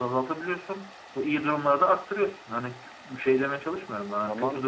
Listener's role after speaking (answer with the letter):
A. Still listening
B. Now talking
A